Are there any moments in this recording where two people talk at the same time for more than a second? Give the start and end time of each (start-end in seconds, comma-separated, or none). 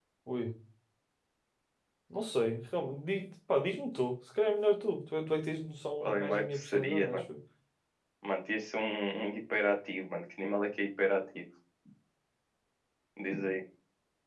6.0-7.2